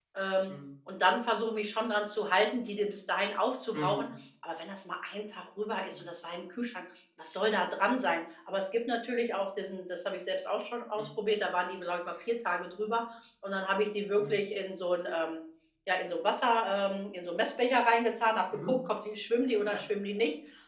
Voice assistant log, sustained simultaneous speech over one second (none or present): none